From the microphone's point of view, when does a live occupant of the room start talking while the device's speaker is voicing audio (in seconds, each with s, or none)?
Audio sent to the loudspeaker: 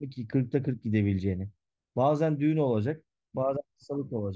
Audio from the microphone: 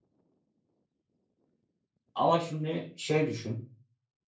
2.1 s